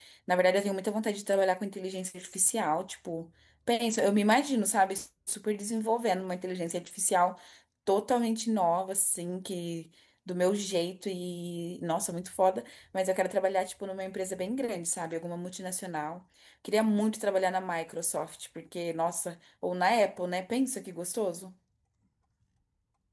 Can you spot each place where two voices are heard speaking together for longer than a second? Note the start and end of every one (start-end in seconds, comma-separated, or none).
none